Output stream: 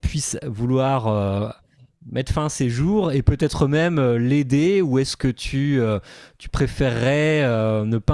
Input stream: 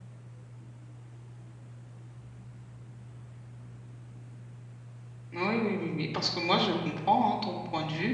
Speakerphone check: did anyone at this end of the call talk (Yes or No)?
Yes